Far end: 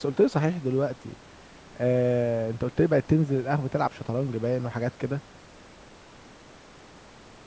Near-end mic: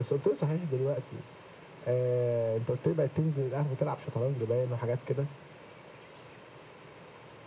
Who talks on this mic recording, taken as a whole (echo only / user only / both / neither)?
echo only